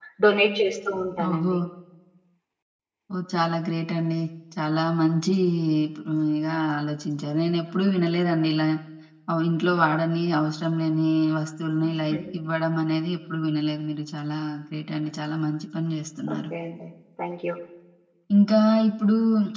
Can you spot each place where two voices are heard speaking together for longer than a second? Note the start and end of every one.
none

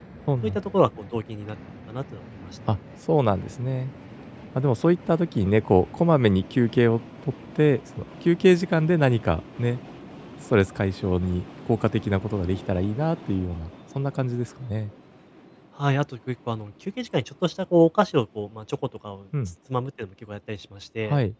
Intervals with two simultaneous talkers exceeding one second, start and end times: none

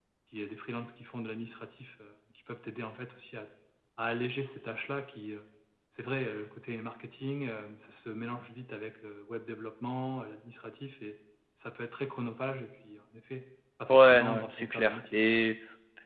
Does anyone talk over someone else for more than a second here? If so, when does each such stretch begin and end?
13.9-15.2

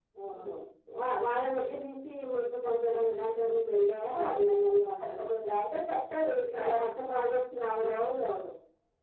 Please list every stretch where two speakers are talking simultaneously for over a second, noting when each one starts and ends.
none

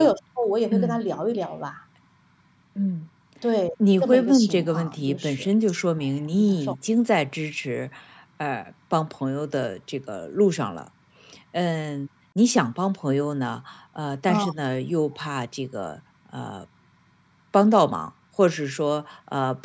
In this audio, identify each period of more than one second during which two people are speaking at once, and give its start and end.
4.0-5.5

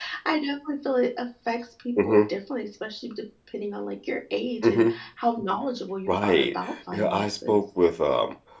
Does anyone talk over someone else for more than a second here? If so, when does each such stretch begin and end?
6.1-7.6

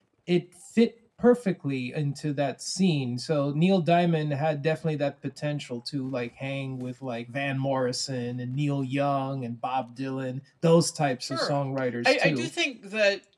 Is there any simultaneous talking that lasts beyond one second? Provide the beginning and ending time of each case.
none

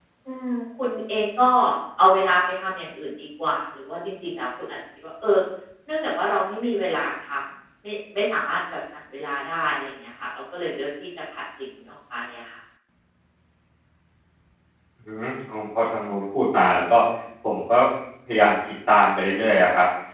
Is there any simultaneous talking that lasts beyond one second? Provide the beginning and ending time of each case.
none

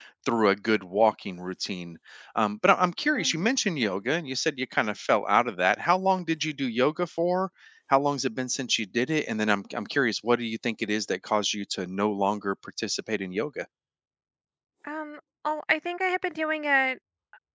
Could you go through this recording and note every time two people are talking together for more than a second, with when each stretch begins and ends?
none

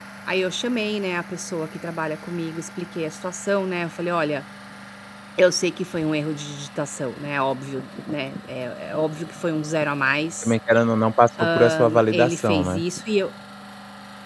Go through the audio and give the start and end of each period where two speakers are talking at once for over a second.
11.4-12.8

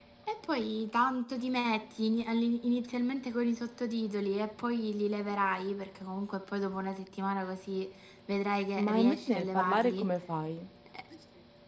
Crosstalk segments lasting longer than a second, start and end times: 8.8-10.1

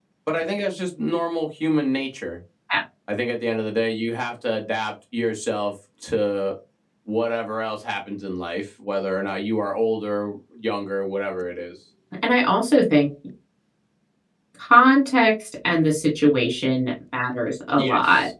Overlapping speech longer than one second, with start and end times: none

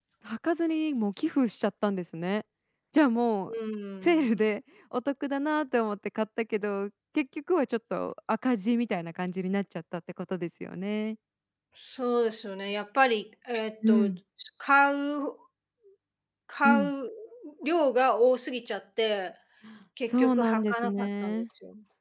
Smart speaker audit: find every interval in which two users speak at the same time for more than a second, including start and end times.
20.1-21.4

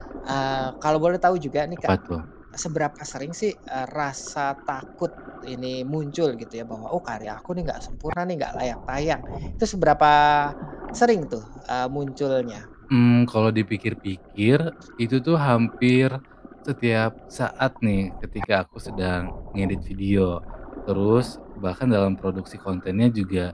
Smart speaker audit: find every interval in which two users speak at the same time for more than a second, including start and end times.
none

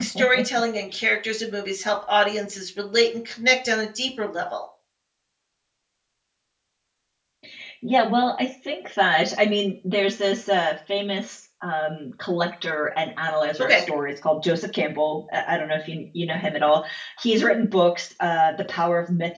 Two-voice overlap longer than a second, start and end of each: none

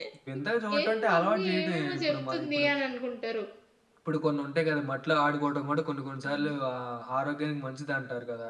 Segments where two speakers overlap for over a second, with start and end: 0.8-2.6

